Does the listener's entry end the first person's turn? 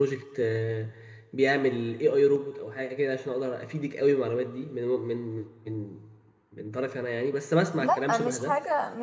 Yes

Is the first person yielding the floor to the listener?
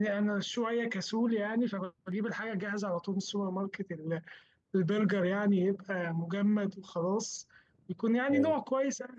No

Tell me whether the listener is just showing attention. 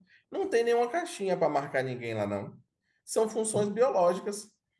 Yes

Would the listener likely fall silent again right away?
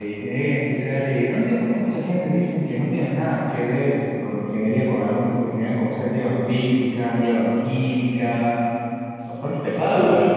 No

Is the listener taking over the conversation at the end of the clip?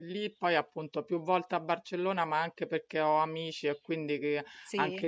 No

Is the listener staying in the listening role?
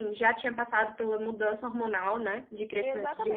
No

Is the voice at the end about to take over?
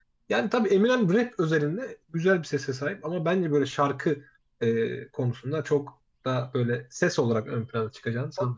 Yes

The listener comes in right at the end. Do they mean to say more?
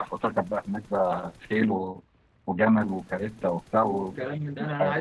Yes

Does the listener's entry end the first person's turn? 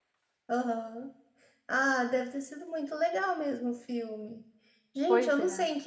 No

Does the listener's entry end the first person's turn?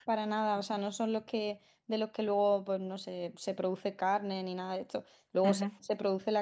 No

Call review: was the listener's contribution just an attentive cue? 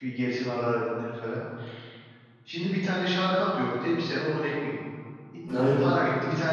Yes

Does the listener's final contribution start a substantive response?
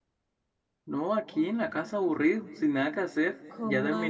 Yes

